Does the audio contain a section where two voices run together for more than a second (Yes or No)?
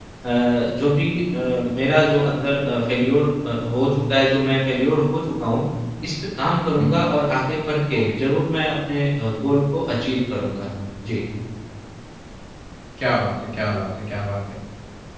No